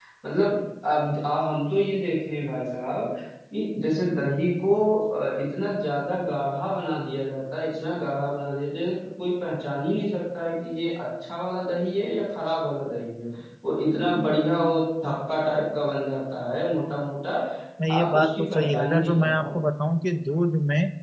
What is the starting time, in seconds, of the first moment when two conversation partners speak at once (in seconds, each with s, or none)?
17.9 s